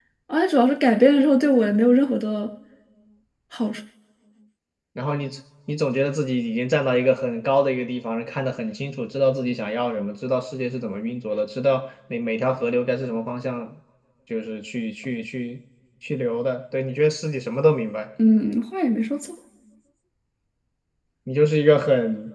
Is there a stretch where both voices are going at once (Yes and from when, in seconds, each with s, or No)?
No